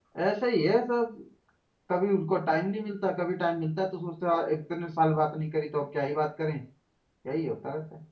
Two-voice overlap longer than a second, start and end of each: none

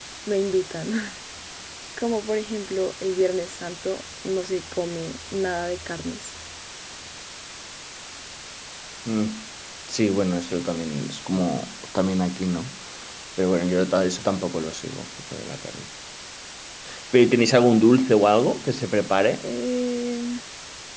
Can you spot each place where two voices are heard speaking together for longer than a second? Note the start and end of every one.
none

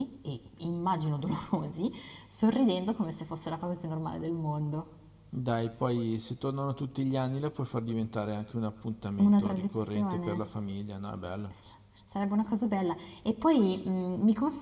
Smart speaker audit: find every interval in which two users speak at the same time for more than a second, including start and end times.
9.2-10.4

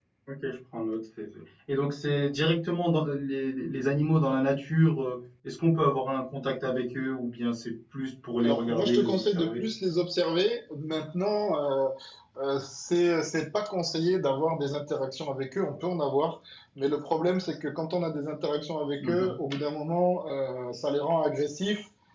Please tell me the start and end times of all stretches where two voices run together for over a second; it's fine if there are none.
8.4-9.6

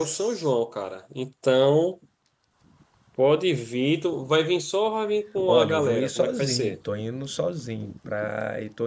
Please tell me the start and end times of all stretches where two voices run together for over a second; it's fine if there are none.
5.5-6.8

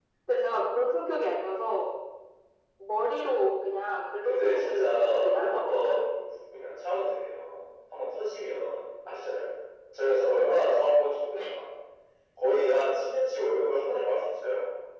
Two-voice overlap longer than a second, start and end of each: 4.2-6.0

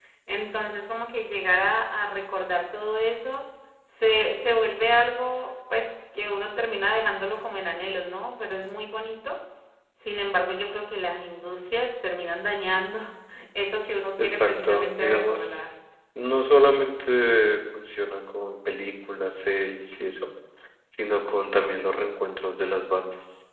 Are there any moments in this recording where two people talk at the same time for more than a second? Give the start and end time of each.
14.2-15.6

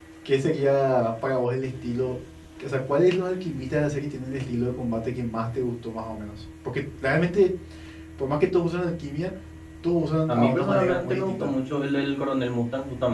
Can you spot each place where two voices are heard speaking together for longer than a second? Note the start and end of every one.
10.3-11.5

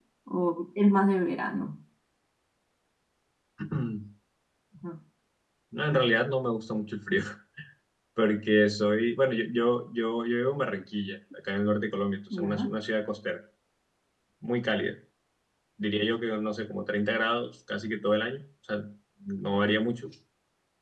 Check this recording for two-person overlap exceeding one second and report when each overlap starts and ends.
none

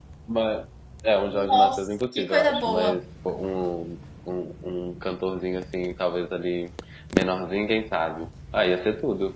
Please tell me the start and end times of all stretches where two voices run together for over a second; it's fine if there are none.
1.5-3.0

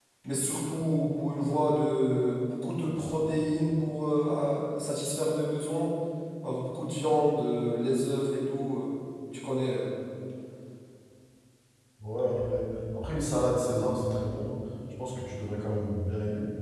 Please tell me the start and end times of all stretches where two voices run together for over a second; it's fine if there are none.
none

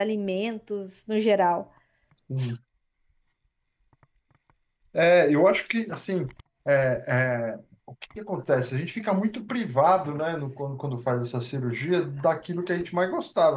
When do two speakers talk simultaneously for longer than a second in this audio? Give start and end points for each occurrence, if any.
none

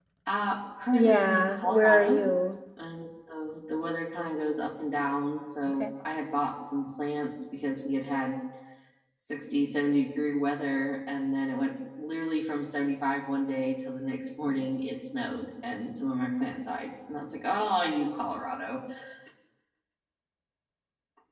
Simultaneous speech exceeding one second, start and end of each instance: 0.9-2.2

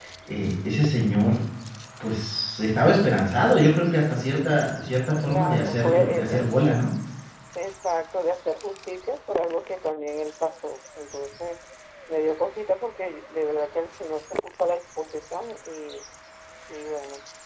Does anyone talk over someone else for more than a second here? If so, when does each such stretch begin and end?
5.3-6.8

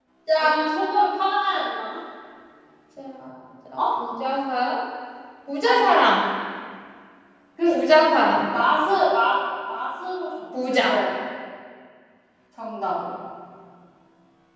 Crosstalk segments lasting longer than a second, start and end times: none

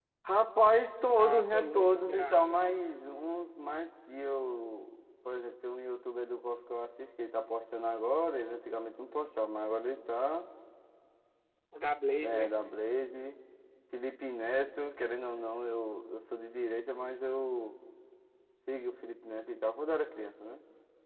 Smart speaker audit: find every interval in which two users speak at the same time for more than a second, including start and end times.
1.2-2.4

